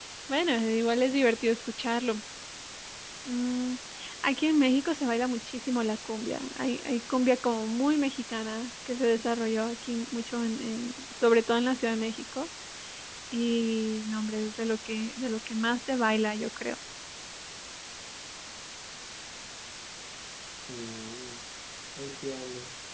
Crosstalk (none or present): none